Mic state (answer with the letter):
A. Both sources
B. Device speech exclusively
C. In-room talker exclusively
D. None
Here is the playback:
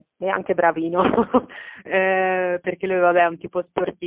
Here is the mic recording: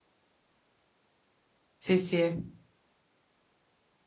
C